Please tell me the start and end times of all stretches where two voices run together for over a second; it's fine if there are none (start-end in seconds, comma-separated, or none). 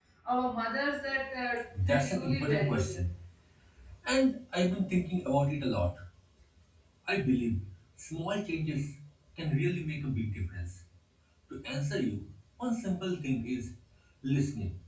1.8-3.0